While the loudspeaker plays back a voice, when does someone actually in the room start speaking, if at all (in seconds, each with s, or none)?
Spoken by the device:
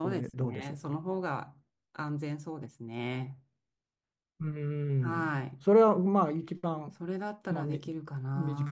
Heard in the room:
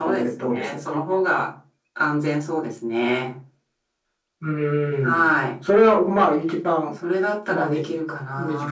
none